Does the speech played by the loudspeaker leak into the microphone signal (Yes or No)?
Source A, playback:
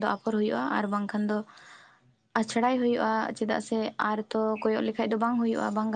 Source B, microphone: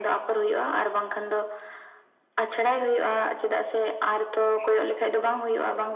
Yes